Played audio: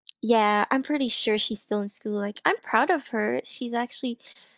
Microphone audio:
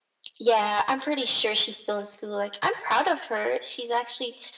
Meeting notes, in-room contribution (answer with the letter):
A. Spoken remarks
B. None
B